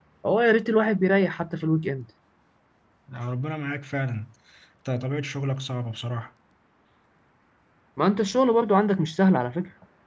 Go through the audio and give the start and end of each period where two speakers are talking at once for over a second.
none

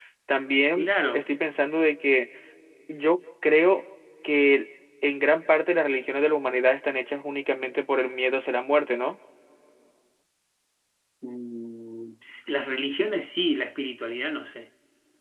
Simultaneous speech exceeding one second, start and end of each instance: none

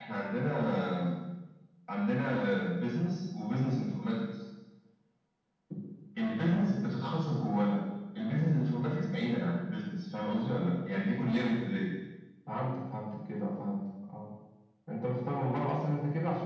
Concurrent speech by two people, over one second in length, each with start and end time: none

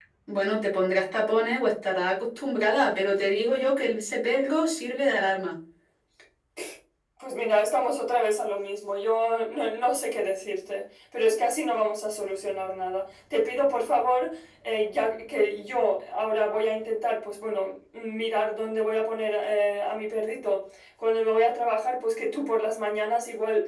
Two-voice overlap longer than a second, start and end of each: none

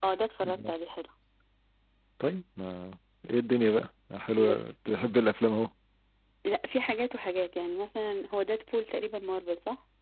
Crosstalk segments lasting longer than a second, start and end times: none

